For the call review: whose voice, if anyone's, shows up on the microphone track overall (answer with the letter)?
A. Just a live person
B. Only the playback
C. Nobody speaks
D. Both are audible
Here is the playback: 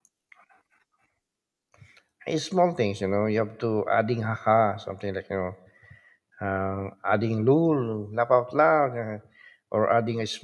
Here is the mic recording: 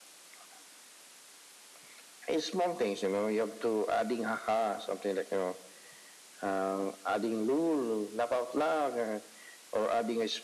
B